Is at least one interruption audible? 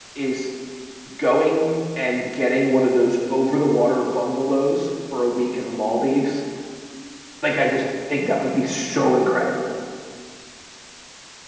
No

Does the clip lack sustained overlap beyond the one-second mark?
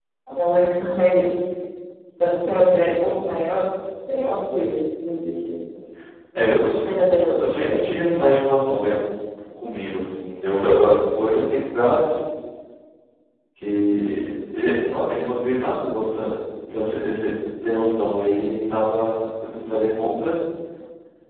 Yes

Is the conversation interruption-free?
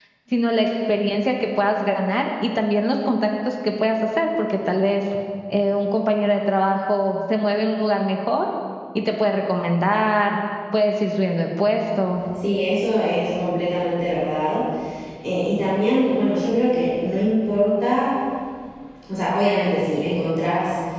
Yes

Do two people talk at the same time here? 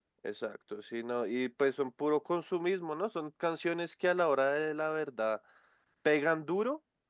No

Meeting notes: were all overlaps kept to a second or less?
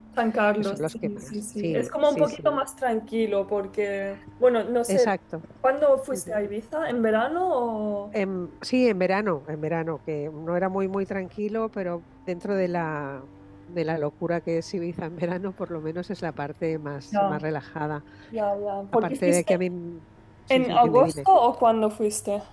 No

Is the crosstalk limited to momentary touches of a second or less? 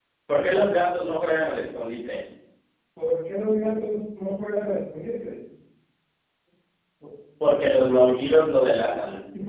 Yes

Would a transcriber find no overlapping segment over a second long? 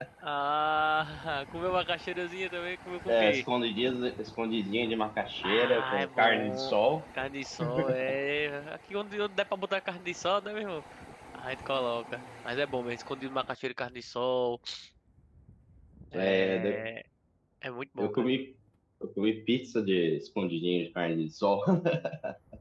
No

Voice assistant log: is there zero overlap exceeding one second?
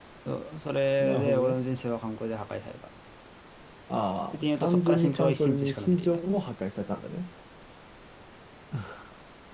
No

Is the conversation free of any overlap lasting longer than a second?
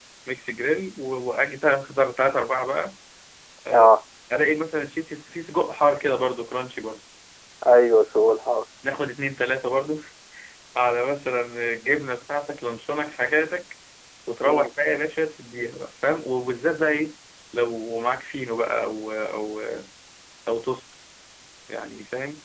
Yes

